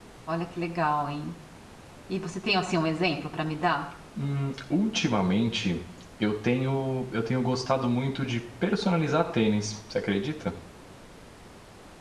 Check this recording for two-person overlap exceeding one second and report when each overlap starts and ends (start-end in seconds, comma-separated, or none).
none